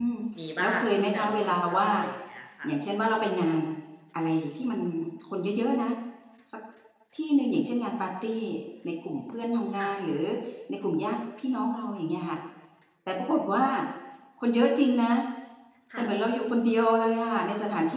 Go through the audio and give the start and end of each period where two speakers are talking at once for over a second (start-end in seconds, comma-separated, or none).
0.6-1.8